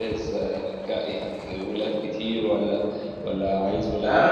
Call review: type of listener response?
taking over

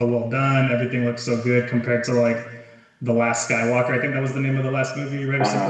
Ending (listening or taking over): taking over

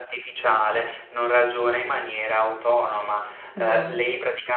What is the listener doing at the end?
listening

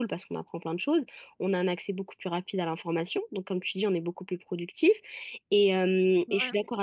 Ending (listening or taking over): listening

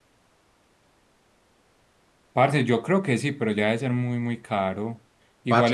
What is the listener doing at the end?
listening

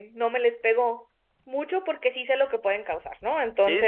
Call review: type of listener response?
taking over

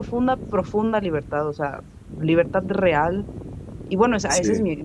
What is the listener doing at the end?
listening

